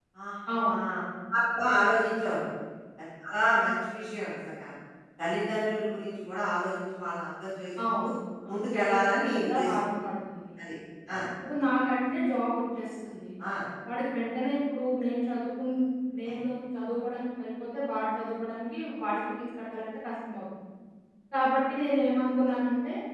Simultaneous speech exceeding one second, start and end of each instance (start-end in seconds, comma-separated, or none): 8.5-9.8